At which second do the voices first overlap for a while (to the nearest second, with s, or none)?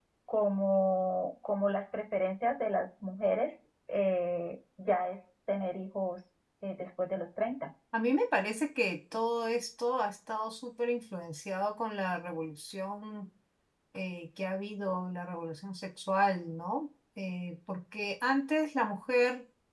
none